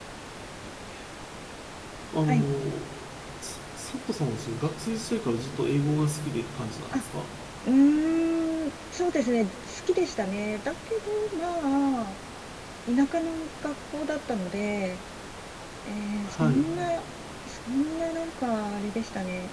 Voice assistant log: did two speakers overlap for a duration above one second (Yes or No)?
No